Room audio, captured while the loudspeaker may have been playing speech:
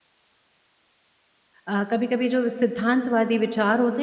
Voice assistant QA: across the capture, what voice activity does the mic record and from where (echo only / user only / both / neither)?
user only